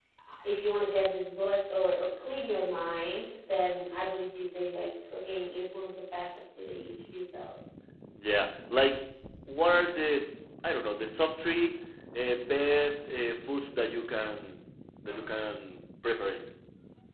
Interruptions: none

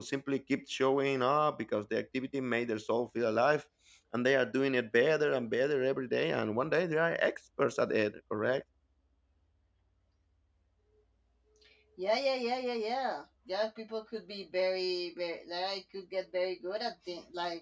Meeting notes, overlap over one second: none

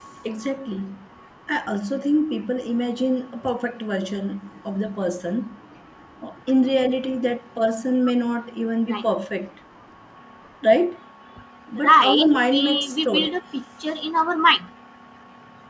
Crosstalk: present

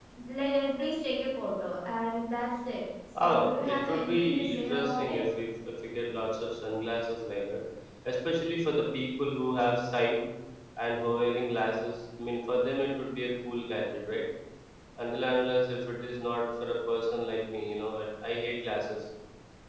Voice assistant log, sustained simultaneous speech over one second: present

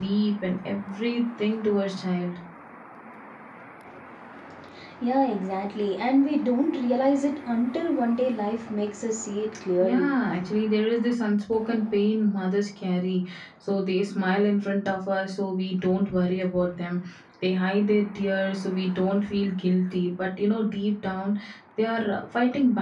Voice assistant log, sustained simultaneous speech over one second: none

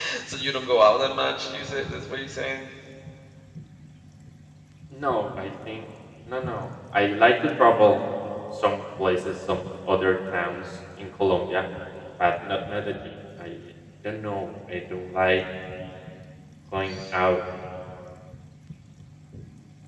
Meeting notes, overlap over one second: none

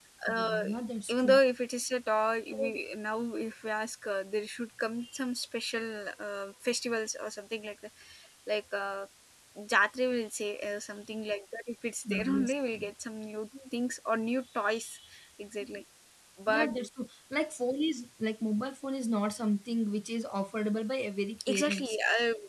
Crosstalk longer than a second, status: none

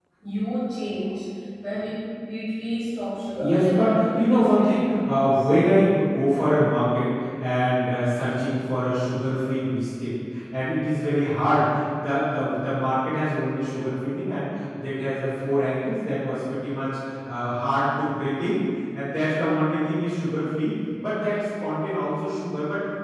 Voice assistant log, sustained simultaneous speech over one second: present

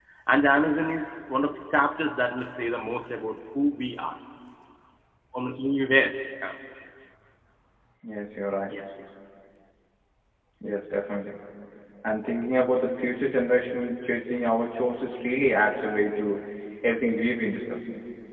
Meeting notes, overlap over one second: none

